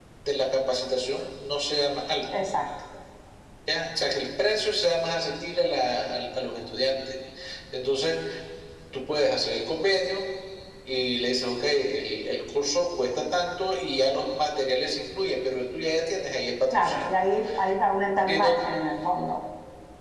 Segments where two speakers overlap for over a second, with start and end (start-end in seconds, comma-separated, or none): none